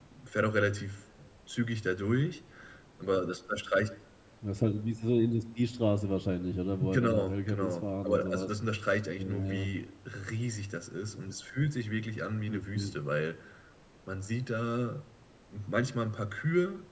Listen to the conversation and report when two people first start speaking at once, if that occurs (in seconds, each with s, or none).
6.8 s